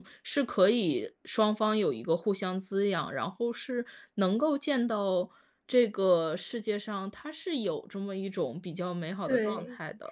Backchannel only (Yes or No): No